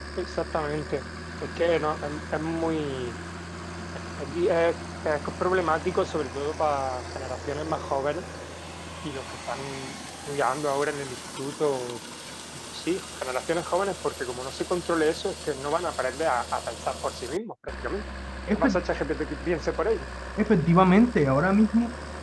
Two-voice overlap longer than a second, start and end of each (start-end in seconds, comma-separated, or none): none